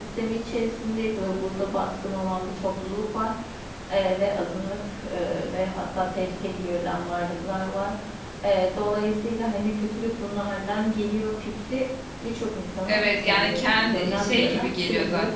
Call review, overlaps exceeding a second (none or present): present